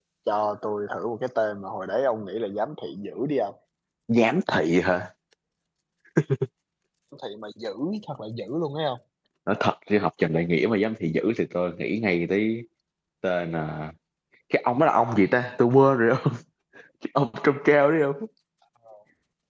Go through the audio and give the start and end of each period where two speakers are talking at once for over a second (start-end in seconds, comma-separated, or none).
none